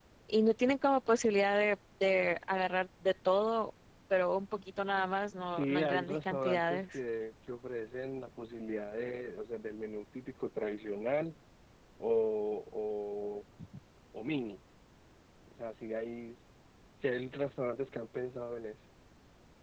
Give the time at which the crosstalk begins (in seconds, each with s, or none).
5.5 s